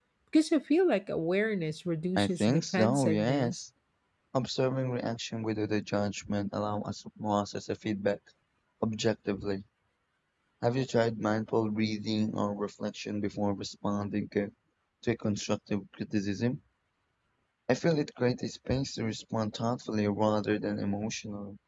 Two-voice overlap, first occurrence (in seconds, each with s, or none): 2.2 s